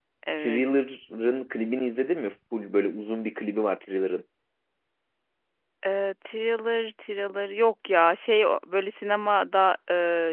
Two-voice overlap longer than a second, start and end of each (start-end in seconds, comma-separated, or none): none